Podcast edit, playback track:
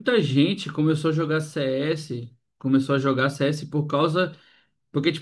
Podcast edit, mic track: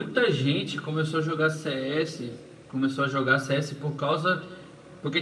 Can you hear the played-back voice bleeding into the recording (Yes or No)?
Yes